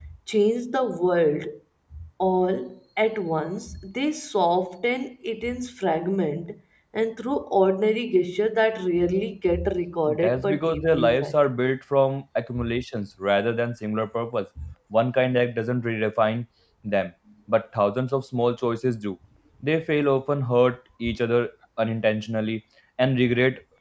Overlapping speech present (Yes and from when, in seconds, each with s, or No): Yes, from 10.1 s